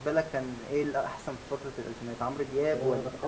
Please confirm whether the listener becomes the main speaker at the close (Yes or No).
Yes